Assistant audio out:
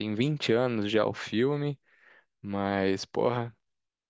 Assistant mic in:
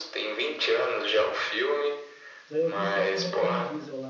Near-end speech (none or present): present